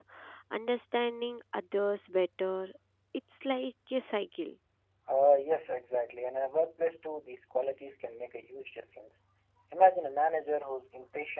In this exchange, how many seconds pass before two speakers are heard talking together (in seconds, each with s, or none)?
none